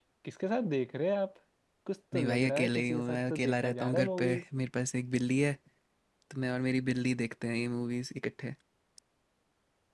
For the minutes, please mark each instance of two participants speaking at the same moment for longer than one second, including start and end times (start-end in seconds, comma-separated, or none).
2.1-4.4